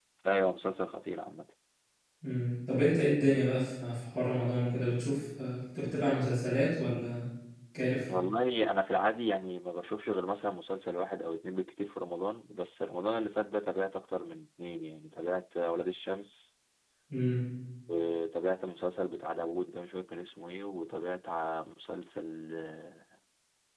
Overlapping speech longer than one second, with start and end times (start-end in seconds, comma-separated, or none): none